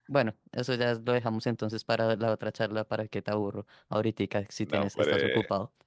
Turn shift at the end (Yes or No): Yes